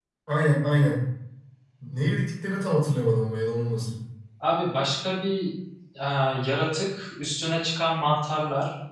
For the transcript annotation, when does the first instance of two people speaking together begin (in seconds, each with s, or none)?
none